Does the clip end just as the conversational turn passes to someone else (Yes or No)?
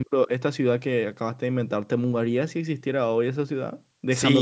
Yes